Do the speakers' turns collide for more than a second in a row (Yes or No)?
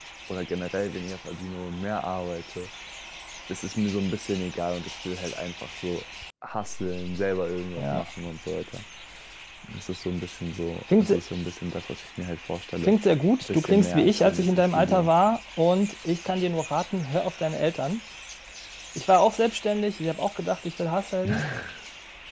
Yes